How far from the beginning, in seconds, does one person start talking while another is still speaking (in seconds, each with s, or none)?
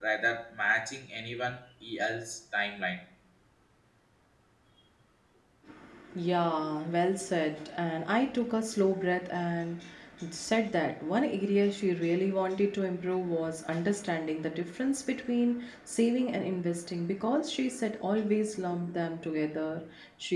none